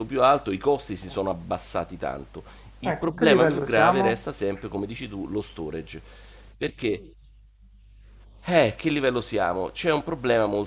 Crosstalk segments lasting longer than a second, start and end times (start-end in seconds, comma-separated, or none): 2.9-4.2